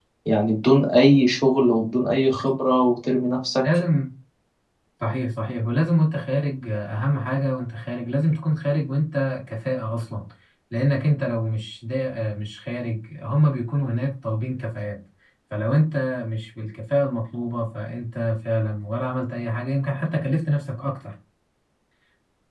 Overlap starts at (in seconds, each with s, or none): none